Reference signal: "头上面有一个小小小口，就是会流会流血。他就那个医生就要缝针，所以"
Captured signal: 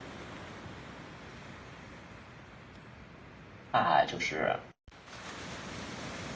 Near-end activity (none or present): present